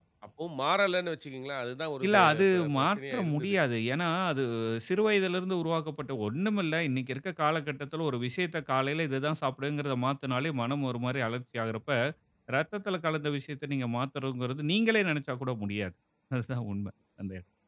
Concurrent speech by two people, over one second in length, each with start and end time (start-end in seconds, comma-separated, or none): 2.0-3.6